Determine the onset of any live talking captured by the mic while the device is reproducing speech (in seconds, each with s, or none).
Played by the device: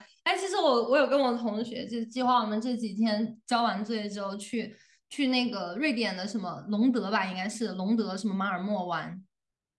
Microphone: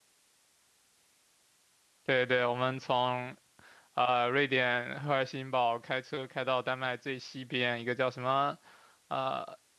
2.0 s